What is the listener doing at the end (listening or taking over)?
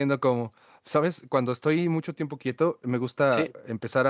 listening